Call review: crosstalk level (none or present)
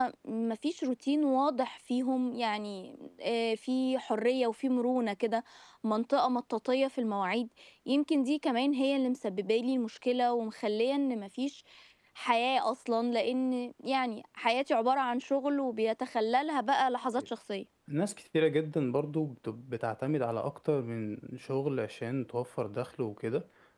none